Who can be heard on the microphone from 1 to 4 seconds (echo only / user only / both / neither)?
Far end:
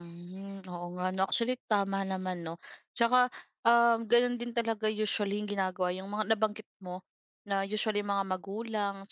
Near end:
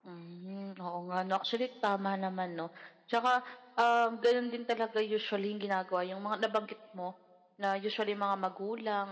echo only